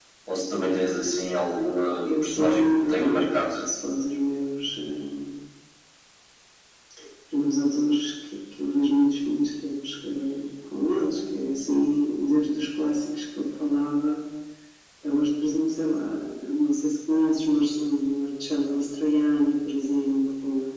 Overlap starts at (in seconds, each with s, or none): 2.0 s